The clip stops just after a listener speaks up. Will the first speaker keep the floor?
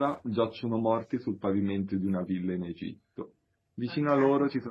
Yes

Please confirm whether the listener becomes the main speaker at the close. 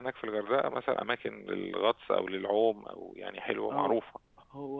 Yes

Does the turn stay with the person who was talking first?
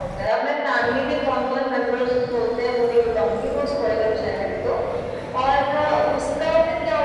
Yes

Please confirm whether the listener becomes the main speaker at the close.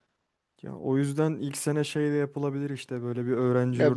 Yes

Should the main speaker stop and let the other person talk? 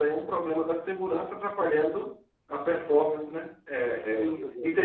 No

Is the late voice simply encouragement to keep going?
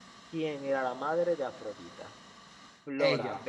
Yes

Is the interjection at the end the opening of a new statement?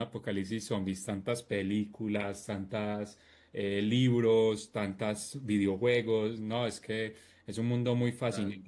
No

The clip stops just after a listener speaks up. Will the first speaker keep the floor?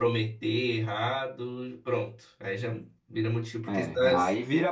No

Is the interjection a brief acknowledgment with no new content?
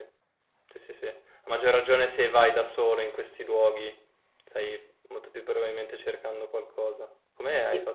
No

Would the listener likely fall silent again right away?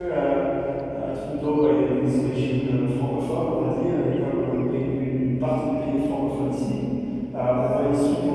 Yes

